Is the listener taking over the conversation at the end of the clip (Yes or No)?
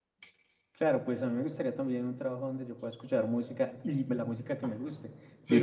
No